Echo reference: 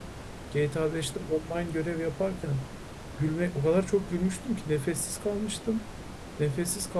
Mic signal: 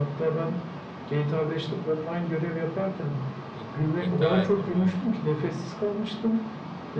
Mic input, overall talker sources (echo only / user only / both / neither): both